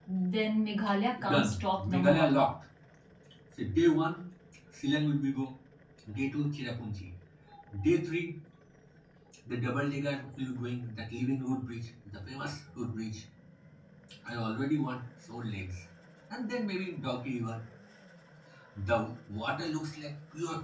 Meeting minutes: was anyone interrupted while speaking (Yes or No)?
Yes